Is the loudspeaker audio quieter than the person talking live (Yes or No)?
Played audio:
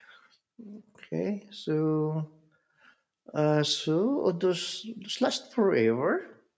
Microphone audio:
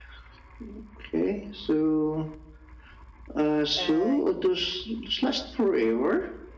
No